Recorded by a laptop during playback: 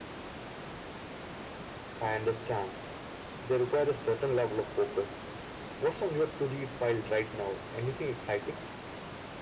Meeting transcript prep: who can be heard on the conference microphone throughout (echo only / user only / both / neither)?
echo only